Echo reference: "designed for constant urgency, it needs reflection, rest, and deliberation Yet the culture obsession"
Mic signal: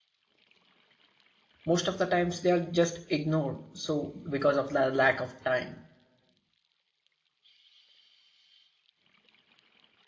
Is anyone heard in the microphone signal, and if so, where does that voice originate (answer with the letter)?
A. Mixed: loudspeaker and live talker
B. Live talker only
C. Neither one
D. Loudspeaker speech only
B